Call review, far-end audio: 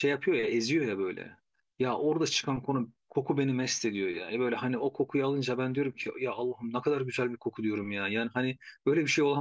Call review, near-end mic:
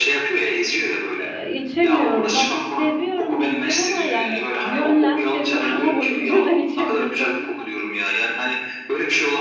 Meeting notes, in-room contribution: present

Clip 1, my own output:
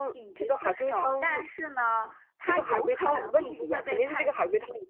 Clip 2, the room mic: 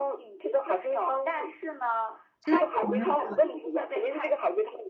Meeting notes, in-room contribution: present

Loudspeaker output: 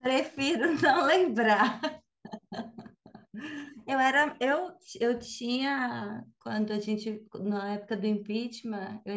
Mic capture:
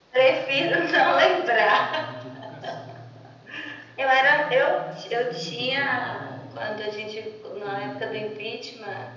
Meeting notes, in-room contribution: present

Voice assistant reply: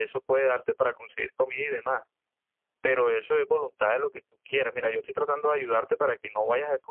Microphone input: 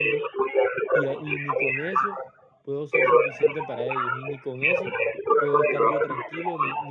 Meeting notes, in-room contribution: present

